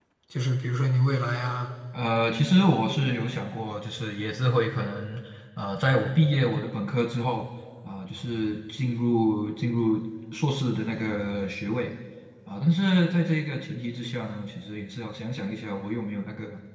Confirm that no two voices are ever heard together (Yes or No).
Yes